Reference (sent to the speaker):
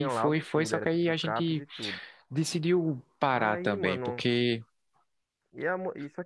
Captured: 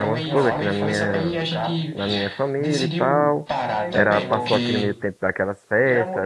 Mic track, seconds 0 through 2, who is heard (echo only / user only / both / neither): both